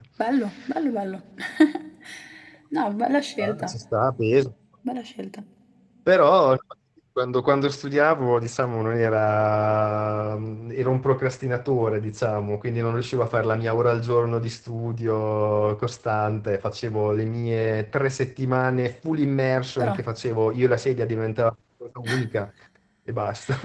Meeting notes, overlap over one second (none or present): none